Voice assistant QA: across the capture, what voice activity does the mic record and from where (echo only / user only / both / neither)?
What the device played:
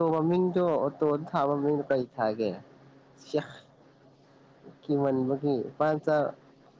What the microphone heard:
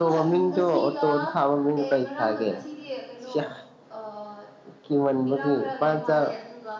both